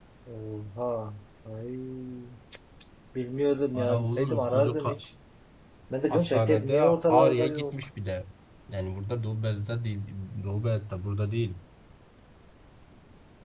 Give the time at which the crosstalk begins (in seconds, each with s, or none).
3.7 s